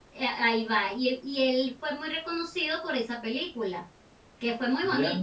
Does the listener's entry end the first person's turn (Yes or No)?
No